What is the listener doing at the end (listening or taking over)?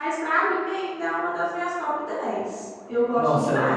taking over